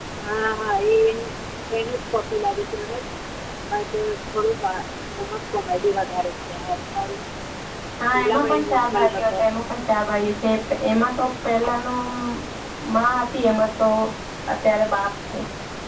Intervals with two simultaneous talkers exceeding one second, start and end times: 8.1-9.4

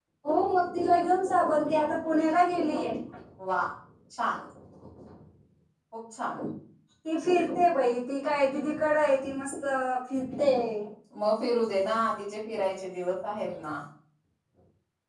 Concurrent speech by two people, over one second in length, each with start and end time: none

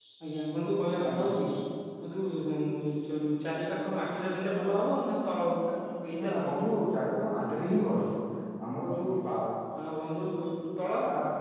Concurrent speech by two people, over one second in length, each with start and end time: none

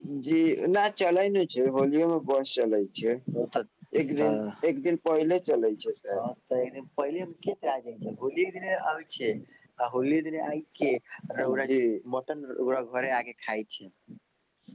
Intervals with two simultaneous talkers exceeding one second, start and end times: none

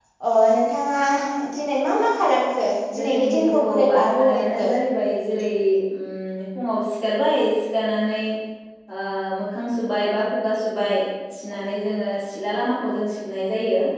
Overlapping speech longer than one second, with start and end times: 3.0-4.7

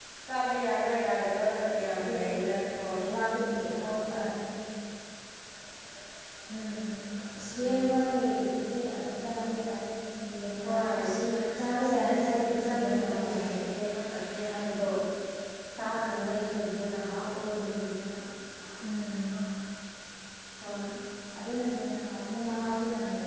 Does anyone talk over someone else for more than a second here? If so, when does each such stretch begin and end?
11.8-13.4

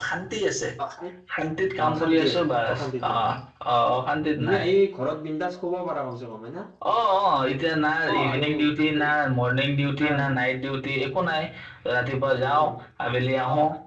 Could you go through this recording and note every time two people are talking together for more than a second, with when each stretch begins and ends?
1.8-3.2

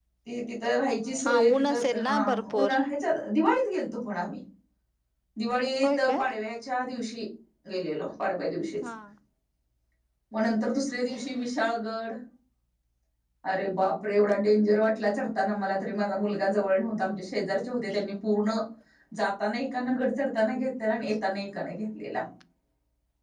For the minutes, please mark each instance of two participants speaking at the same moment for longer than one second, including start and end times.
1.2-2.7

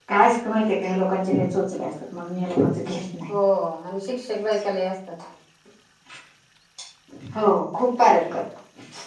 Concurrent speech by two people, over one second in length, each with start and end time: none

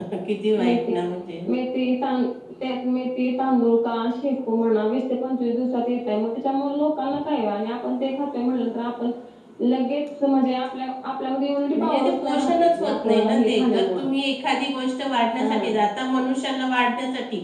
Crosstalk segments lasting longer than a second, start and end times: 11.8-14.0

